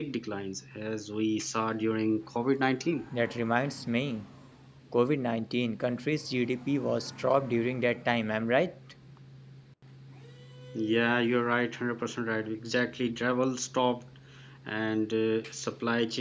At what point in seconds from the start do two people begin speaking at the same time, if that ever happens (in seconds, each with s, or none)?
none